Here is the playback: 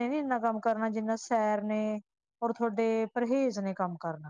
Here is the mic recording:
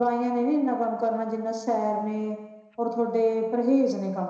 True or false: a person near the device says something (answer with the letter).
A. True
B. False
B